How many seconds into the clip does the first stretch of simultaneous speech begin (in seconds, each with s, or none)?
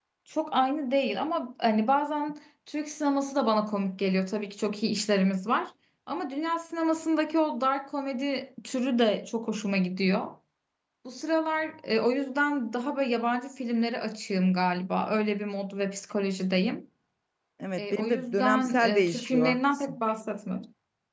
17.8 s